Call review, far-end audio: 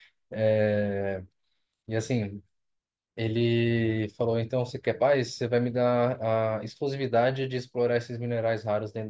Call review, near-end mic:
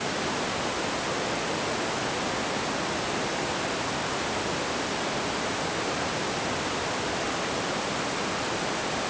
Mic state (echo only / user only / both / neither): neither